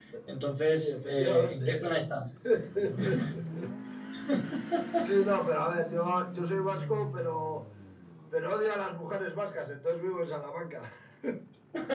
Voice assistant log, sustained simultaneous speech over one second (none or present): present